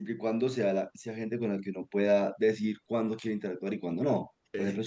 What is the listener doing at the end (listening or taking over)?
listening